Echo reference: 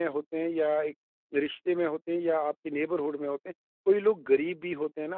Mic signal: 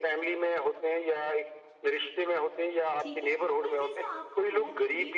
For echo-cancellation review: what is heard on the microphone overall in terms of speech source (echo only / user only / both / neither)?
both